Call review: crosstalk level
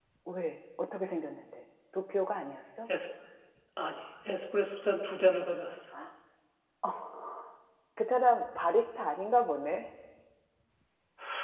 none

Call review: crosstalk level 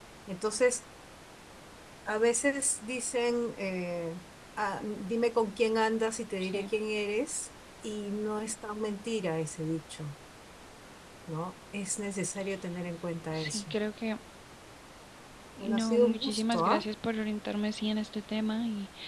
present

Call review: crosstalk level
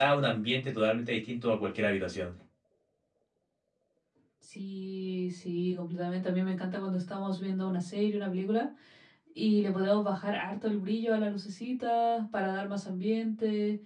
none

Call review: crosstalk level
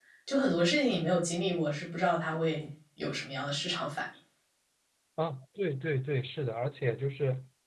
none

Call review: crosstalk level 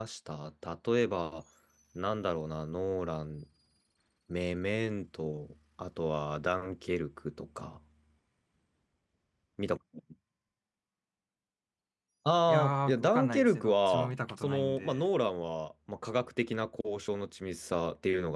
present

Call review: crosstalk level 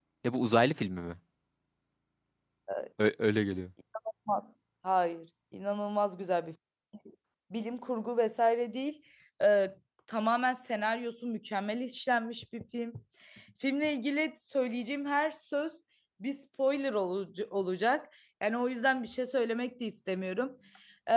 none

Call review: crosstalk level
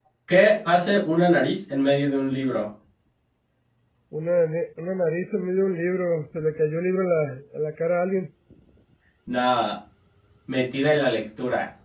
none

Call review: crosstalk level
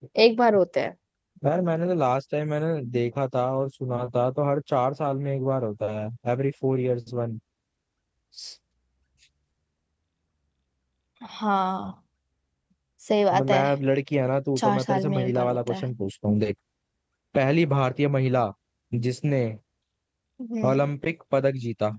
present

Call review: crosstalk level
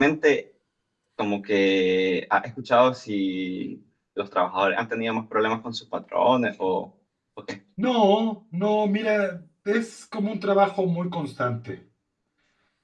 none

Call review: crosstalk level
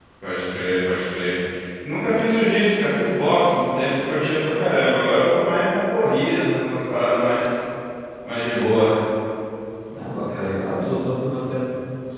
none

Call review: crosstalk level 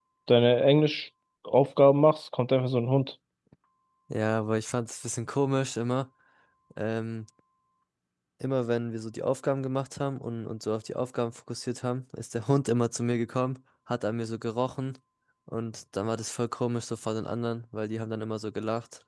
none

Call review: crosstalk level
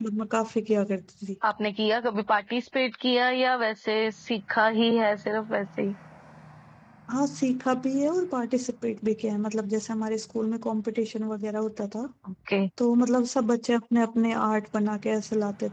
none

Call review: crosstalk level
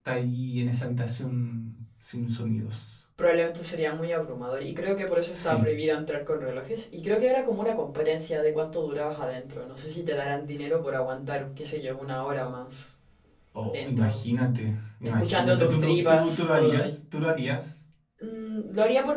present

